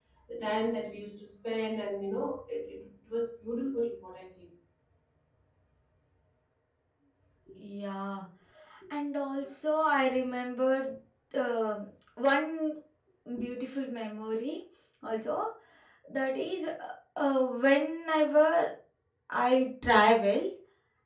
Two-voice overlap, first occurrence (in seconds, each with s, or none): none